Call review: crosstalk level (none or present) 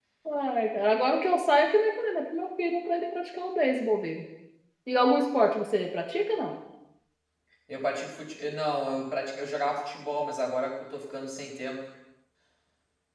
none